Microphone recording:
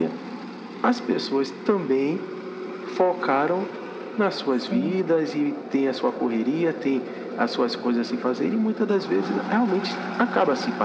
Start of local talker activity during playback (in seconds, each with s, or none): 4.5 s